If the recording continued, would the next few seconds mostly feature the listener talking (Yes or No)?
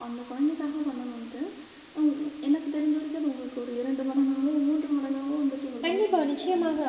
Yes